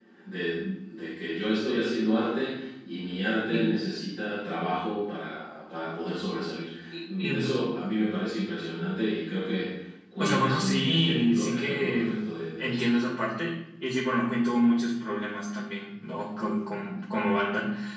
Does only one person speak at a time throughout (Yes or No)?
No